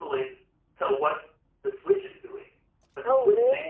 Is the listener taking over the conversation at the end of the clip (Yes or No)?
No